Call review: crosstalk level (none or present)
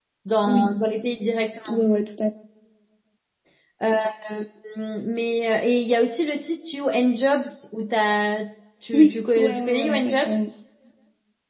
present